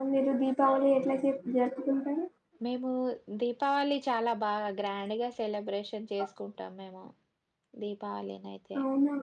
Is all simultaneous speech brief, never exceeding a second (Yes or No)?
Yes